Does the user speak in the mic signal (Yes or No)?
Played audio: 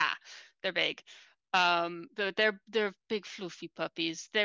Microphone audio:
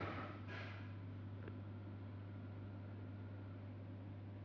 No